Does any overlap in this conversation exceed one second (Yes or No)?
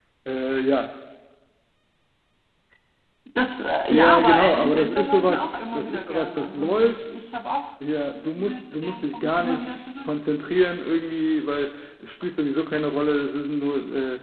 Yes